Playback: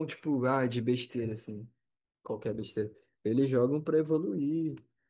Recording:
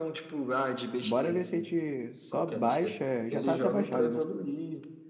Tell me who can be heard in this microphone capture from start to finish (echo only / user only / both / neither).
both